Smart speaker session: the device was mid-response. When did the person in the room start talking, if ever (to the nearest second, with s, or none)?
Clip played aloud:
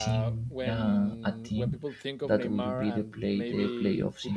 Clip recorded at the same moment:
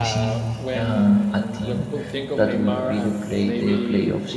none